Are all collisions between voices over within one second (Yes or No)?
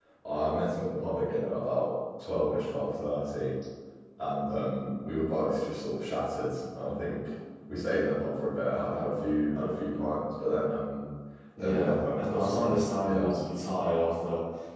No